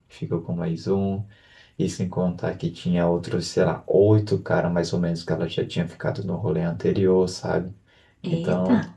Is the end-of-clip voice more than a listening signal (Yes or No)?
No